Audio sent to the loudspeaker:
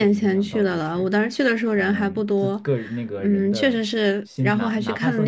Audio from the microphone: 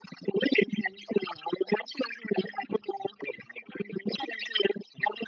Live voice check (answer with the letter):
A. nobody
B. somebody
A